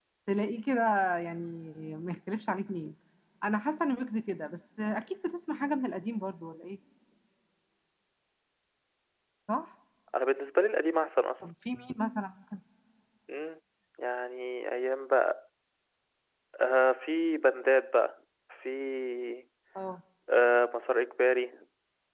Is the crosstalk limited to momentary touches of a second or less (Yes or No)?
Yes